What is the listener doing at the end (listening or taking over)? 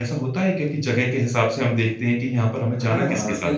taking over